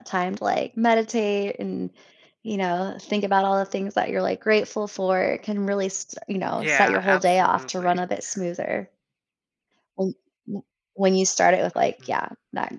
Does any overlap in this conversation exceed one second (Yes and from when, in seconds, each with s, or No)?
Yes, from 6.5 s